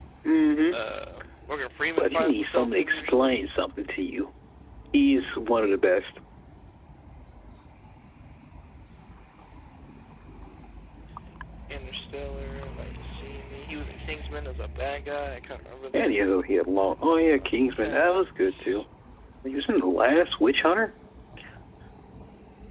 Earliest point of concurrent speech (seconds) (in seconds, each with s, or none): 2.0 s